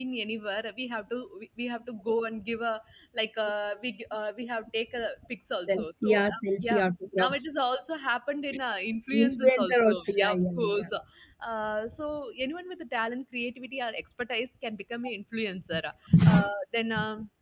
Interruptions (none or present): present